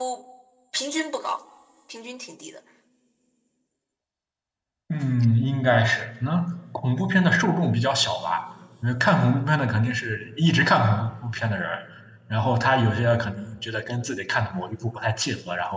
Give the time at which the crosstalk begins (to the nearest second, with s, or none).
none